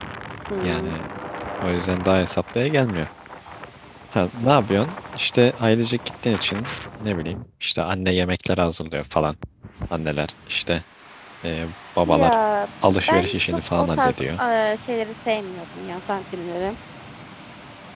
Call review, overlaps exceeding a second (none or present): present